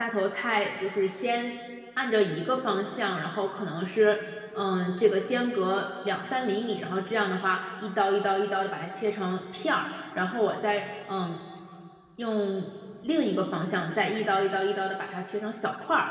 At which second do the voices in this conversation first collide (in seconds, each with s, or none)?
none